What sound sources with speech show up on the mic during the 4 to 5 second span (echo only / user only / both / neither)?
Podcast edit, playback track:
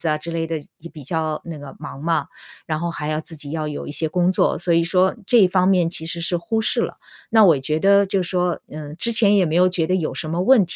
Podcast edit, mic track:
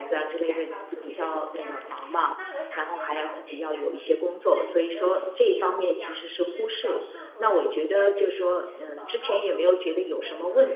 both